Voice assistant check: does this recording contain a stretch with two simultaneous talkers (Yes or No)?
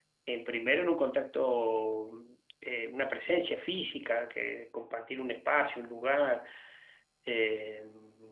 No